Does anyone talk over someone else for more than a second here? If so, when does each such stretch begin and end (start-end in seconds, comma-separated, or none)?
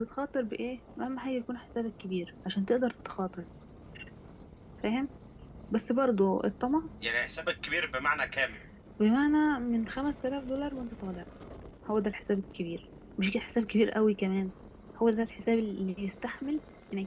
none